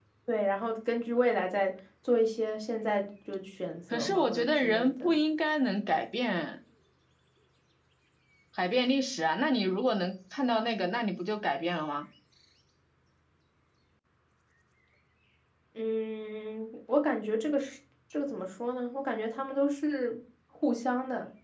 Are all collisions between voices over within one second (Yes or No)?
No